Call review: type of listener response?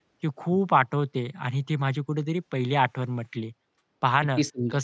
listening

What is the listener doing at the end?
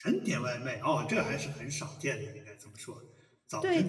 taking over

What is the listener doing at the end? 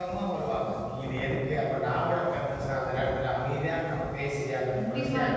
listening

